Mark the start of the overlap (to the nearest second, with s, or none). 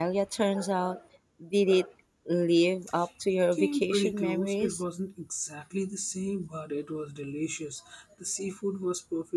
4 s